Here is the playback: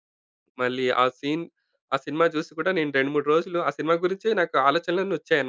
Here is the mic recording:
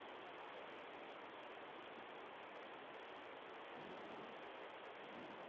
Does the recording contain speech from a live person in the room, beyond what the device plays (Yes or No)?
No